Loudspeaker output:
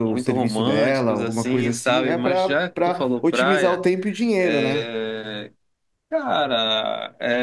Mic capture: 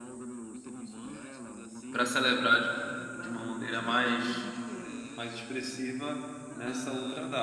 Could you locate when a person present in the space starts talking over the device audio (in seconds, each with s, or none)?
1.9 s